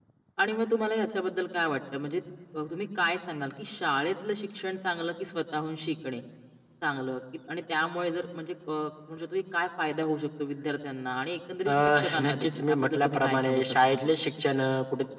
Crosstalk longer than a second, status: present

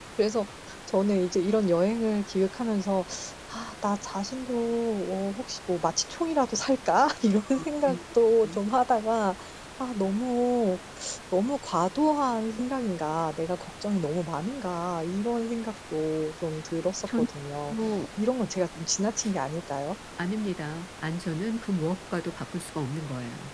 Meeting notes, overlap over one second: none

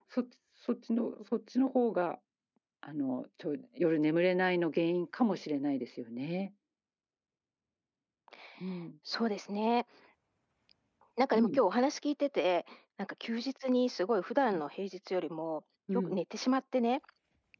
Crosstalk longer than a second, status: none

